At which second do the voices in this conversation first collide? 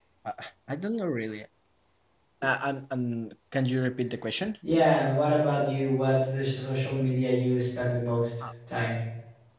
none

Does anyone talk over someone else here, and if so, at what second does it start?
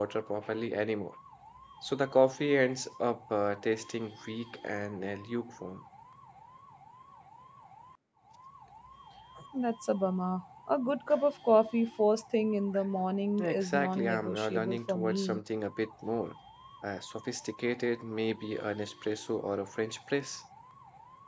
13.4 s

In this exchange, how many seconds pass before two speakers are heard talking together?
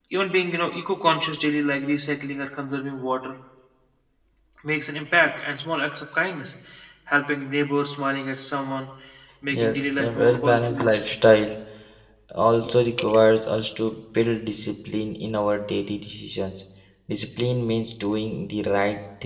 9.5 s

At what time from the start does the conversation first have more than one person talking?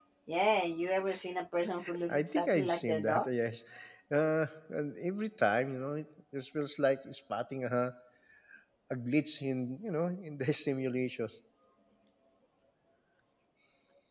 2.1 s

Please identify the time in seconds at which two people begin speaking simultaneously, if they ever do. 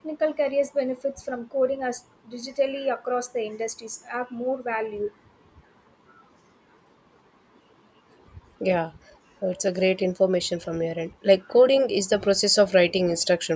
none

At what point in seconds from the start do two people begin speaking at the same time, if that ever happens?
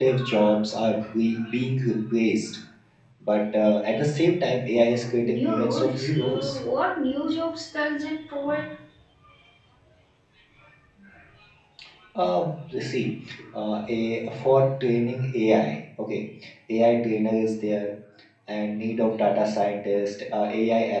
5.0 s

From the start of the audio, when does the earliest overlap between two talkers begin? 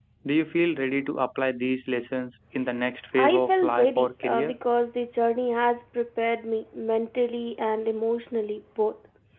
3.2 s

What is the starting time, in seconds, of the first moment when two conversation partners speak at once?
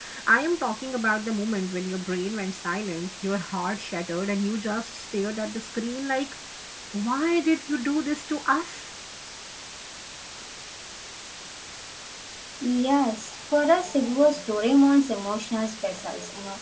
none

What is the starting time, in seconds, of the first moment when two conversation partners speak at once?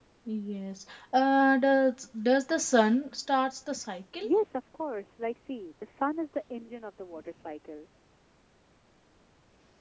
none

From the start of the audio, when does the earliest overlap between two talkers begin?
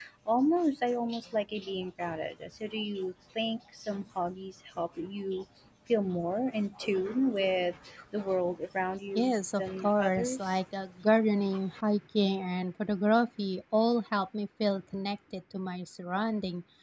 9.2 s

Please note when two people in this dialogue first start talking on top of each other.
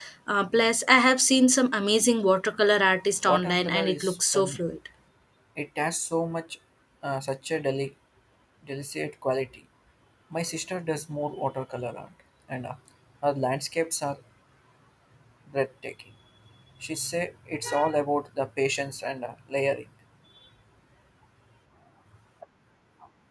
3.2 s

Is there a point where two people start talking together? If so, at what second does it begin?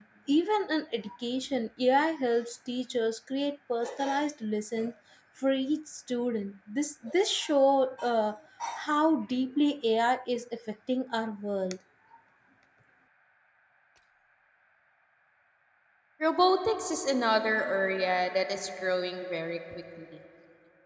none

